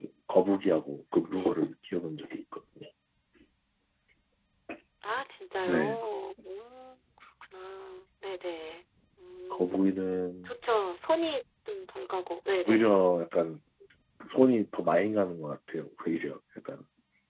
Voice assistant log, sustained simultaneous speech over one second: none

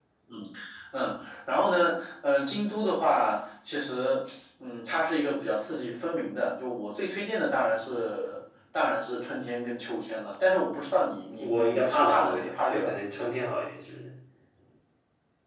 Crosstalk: present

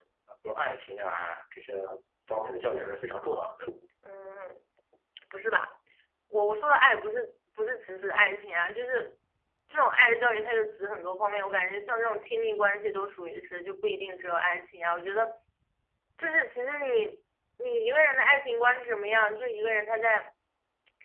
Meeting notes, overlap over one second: none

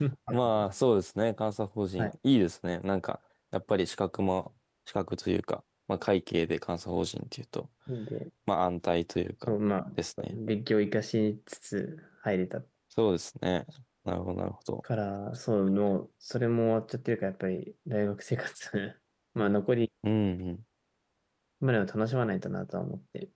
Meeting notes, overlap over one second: none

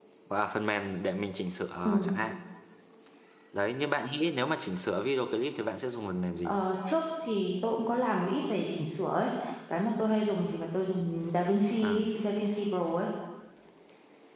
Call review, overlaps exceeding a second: none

